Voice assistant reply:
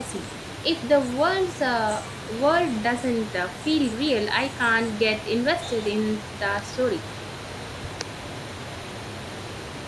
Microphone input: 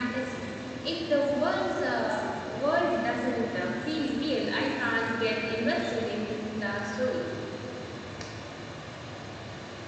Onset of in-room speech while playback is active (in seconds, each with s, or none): none